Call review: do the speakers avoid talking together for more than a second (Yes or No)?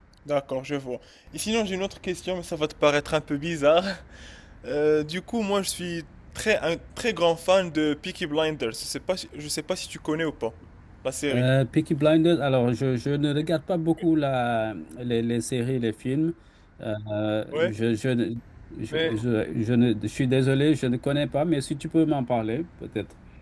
Yes